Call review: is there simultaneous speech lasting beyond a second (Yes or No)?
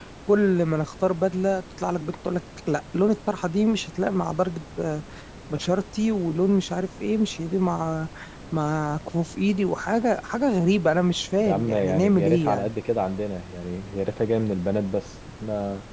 Yes